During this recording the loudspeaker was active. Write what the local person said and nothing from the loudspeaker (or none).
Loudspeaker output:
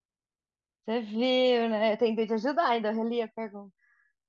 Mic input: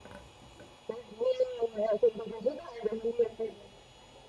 none